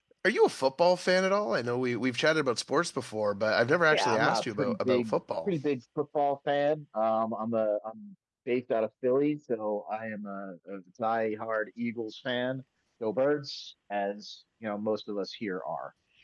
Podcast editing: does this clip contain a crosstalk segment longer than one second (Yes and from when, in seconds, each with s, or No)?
Yes, from 3.9 s